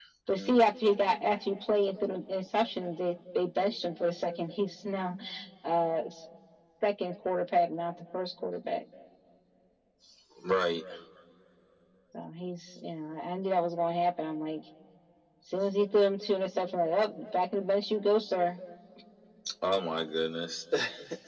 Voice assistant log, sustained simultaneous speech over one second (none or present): none